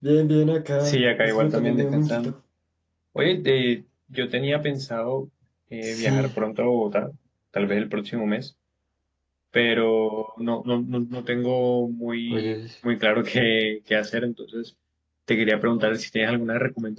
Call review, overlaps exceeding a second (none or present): present